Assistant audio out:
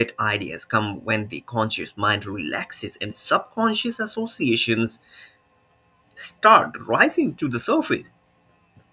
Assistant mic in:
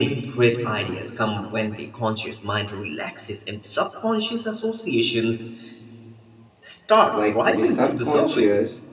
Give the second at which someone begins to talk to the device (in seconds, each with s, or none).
7.1 s